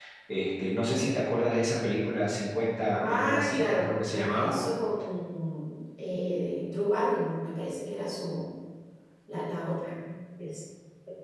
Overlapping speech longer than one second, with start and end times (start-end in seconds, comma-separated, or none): 3.1-4.6